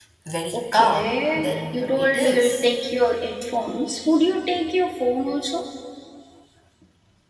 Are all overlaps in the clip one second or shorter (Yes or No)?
No